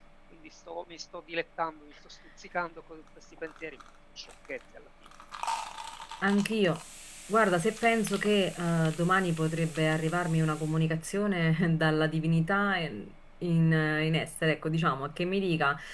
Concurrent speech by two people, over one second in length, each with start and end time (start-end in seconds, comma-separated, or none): none